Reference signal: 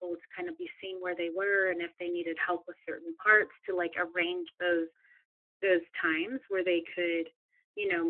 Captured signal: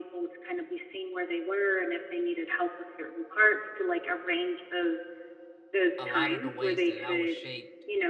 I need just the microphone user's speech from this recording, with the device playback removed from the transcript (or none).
a lot of the ways that I was shaped